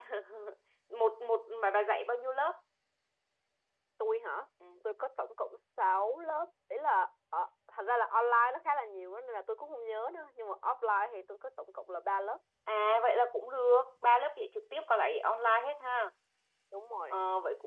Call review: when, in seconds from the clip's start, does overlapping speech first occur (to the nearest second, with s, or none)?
none